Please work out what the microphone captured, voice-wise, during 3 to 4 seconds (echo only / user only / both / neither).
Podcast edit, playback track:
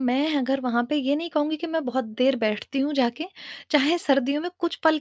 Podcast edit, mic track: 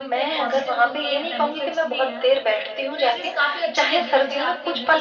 both